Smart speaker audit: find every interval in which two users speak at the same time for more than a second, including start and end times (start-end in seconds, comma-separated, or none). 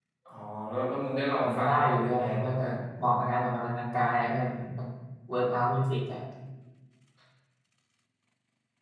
1.4-2.7